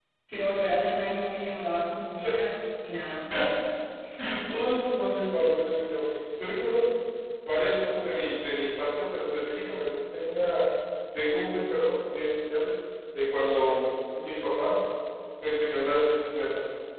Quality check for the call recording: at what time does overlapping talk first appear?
none

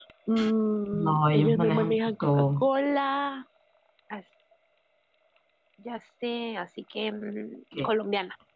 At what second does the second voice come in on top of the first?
1 s

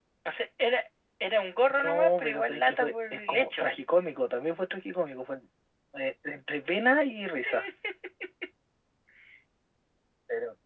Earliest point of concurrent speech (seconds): 2 s

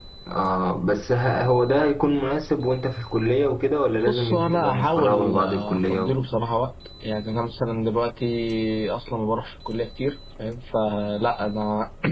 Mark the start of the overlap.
4 s

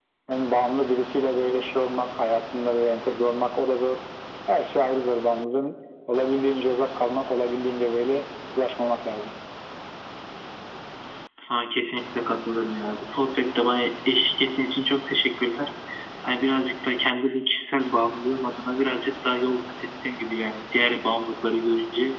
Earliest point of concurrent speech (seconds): none

